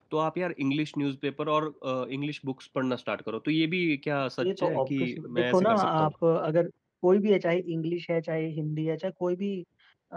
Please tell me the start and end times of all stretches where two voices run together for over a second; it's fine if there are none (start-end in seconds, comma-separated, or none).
4.4-6.1